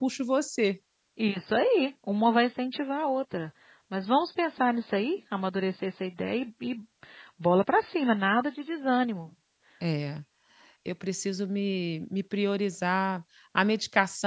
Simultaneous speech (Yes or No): No